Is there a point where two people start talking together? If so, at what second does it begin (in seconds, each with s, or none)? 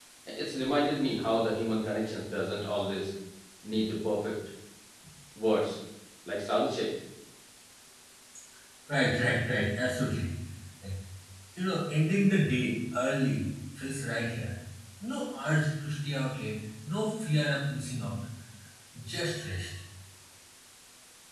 none